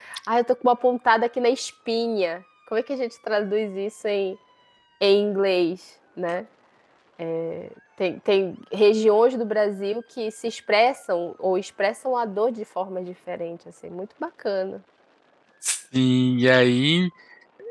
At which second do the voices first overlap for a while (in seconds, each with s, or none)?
none